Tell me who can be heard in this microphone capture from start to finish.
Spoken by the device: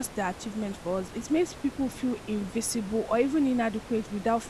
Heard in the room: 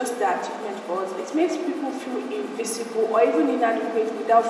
echo only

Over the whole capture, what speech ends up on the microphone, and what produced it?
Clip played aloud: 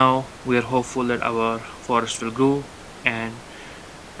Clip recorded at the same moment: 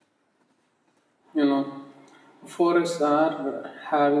user only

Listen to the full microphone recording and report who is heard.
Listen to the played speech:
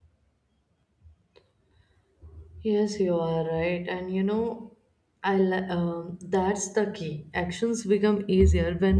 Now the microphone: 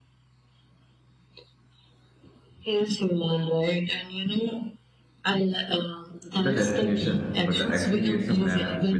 both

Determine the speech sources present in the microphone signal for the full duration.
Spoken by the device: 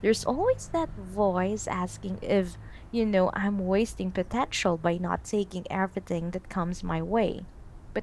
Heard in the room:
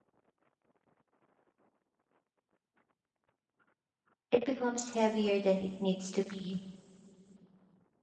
user only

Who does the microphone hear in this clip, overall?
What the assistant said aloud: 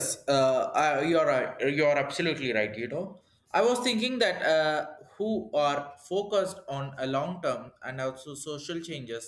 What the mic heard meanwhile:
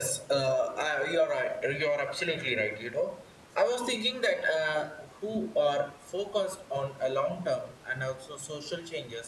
echo only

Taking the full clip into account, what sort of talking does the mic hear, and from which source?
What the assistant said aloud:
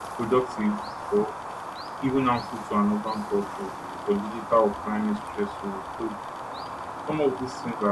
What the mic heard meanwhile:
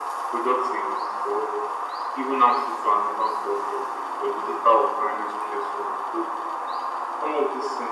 echo only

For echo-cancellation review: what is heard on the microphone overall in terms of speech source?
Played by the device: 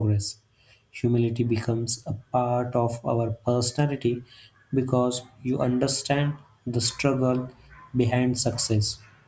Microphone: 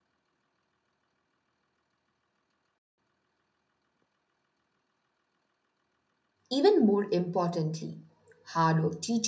user only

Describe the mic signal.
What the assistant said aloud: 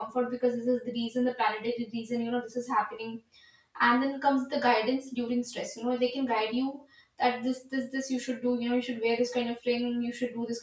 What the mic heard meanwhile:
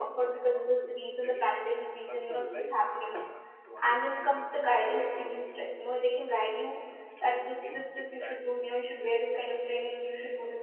both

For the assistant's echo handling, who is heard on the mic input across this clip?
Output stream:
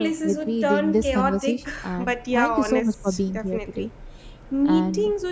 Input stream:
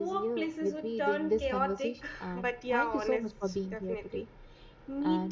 echo only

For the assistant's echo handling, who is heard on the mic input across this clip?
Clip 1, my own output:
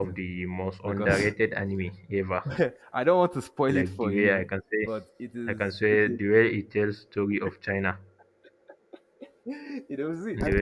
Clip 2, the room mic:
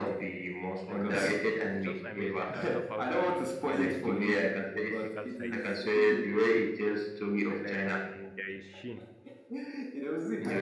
both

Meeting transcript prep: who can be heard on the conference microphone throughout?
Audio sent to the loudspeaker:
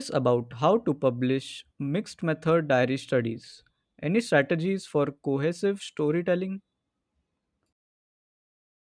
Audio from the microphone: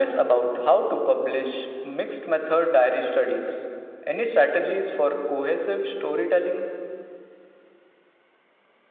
echo only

